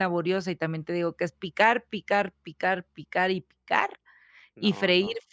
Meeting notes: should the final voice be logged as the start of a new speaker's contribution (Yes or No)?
No